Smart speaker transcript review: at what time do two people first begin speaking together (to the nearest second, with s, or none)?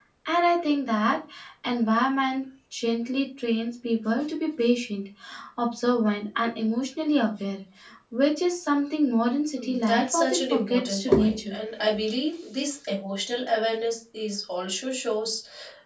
10 s